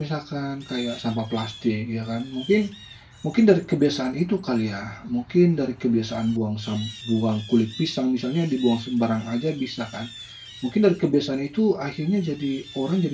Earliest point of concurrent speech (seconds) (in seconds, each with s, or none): none